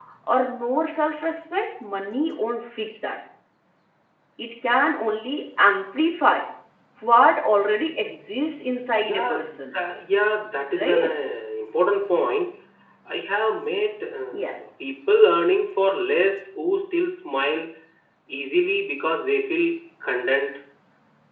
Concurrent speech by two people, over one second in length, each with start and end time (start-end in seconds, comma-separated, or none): none